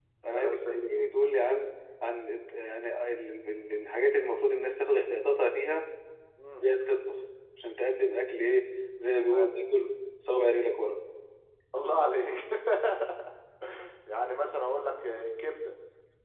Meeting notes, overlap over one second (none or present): none